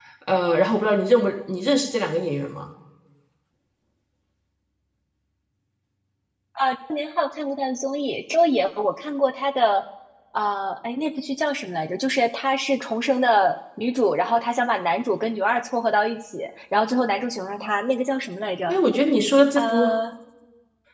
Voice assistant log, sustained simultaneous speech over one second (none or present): none